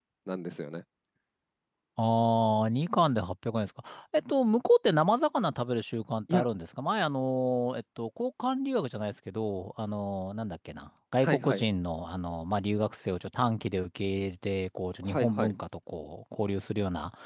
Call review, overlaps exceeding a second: none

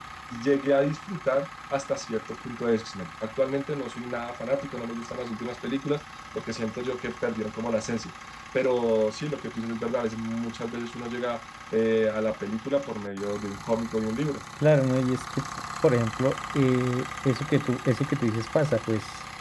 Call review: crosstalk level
none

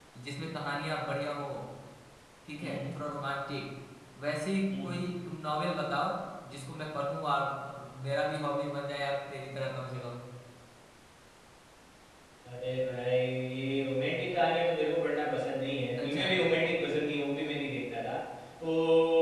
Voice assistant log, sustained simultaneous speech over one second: none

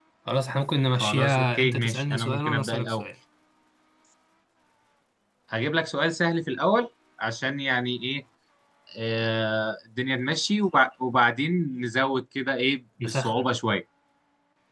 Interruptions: present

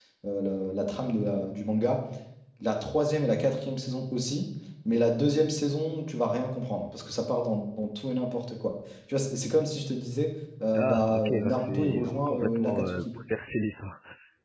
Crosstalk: present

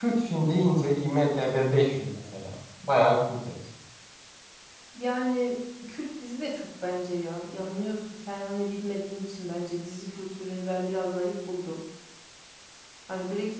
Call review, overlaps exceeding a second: none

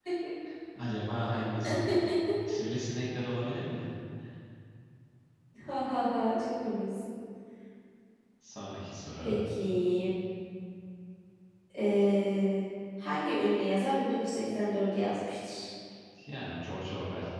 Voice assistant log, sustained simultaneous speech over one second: none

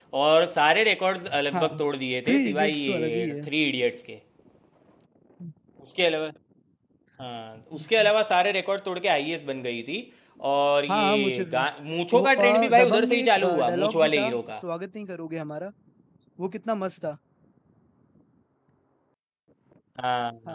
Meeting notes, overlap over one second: present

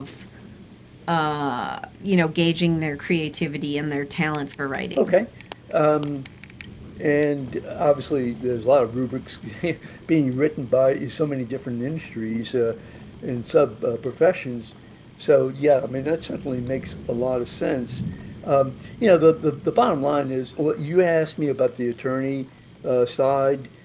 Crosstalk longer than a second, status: none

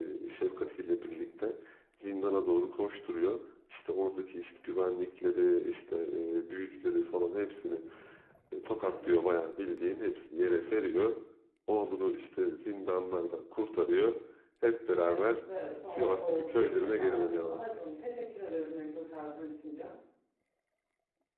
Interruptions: present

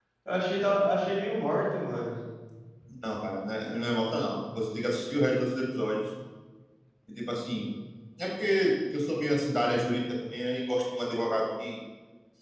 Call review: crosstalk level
none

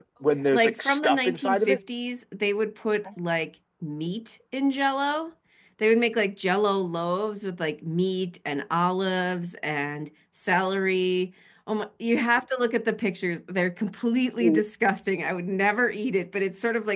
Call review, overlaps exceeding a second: present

